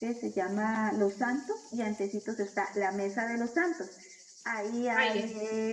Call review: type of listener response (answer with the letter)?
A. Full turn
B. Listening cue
B